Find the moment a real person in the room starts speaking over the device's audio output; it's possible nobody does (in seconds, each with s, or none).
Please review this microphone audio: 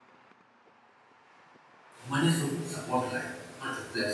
2.0 s